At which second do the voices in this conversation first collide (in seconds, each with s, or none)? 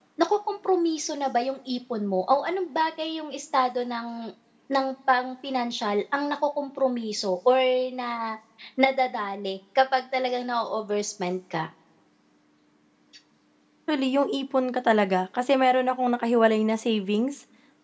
none